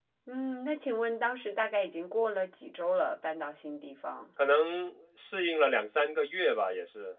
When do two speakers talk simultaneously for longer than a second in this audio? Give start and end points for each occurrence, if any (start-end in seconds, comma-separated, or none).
none